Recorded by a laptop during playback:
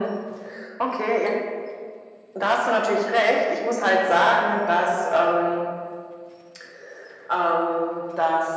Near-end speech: none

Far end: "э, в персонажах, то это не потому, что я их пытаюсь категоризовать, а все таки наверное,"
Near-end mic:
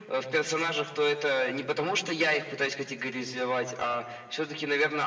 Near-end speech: none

